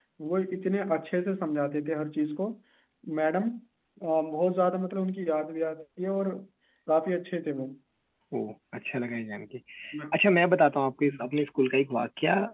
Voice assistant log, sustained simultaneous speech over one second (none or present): none